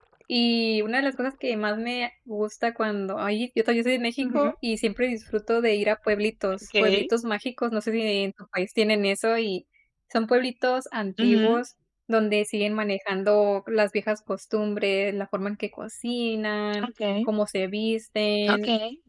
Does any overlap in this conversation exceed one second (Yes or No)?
No